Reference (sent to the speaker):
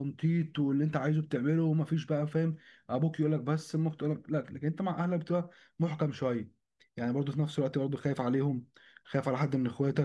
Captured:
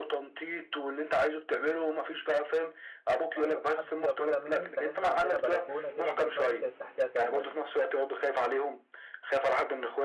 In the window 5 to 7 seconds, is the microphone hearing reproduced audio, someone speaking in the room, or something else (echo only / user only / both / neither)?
both